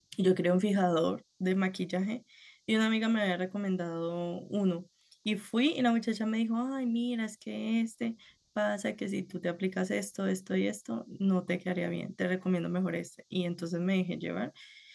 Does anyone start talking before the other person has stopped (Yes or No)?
No